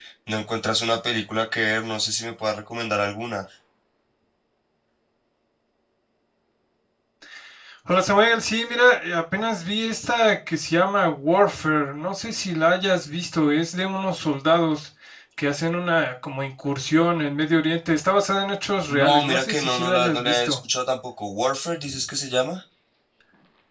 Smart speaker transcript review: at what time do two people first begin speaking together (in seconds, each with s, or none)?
18.9 s